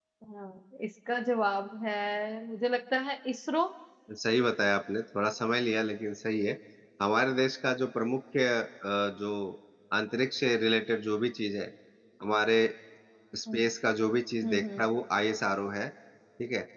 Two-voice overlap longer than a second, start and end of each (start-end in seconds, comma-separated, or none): none